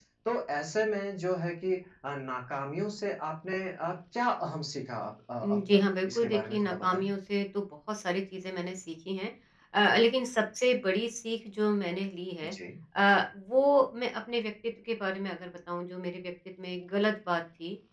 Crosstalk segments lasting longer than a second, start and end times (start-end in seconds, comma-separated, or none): 5.4-7.0